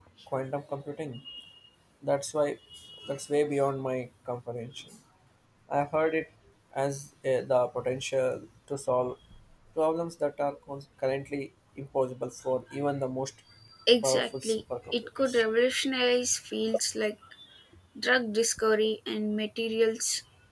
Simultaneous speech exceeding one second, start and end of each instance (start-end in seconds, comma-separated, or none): 14.0-15.4